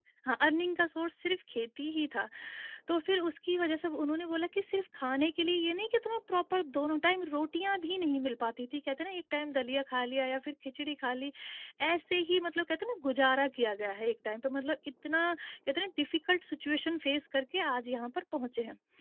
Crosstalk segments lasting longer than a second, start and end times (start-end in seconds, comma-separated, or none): none